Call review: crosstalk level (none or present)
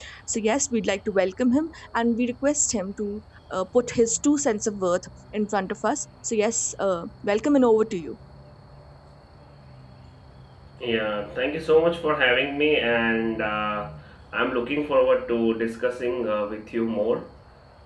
none